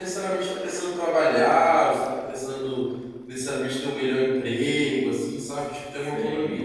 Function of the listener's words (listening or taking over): taking over